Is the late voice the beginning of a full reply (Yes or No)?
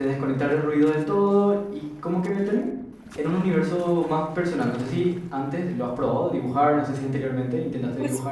Yes